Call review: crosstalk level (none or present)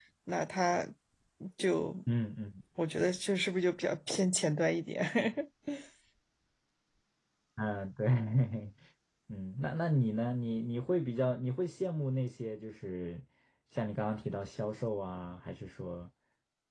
none